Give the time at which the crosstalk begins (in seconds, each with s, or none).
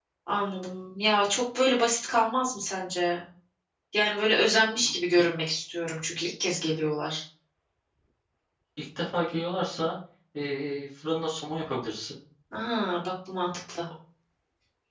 none